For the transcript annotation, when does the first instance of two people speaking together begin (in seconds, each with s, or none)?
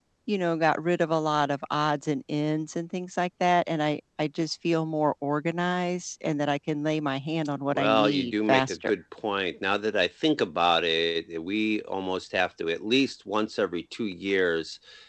7.7 s